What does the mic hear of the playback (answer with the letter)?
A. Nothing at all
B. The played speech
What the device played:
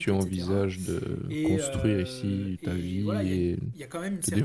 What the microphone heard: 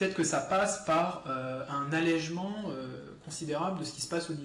A